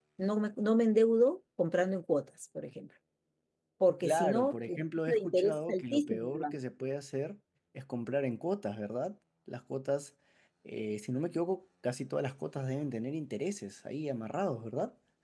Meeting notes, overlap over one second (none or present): present